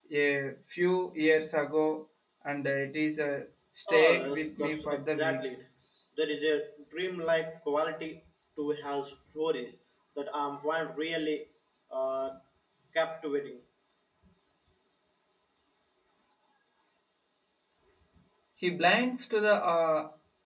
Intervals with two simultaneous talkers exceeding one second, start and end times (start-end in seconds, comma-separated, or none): 3.9-5.4